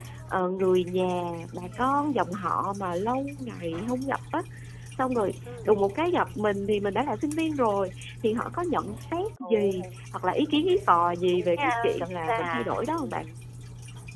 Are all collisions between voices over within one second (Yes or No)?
No